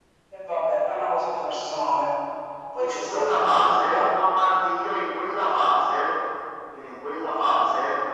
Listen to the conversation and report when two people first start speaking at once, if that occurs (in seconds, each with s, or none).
2.8 s